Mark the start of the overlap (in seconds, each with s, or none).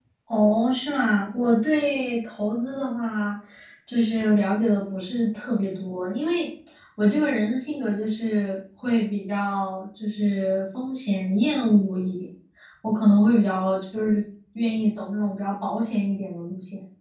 none